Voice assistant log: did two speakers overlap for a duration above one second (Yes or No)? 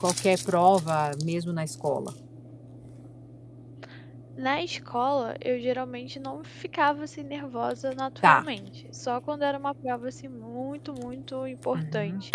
No